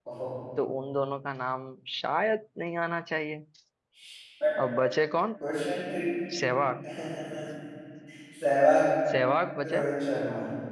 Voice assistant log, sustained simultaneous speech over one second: none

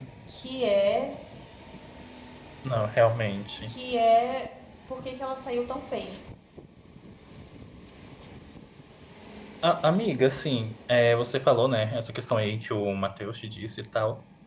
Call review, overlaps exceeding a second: none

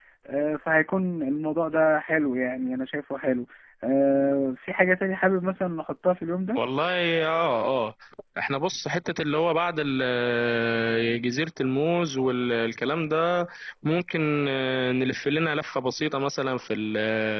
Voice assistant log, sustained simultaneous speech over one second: none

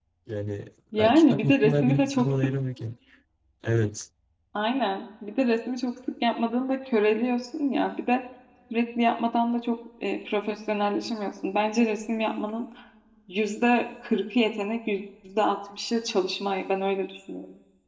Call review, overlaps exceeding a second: present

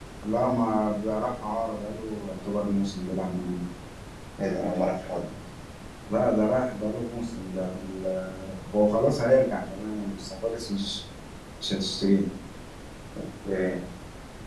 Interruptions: none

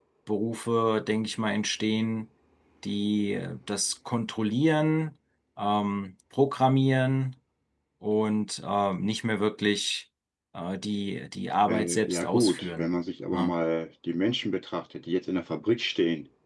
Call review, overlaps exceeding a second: present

